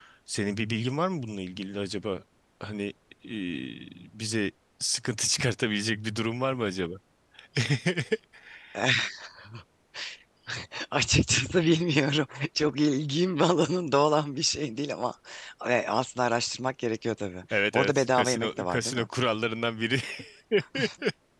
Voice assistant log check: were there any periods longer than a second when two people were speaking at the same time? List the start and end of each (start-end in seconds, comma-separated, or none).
17.5-19.1